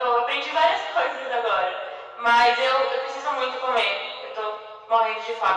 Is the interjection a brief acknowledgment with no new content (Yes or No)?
No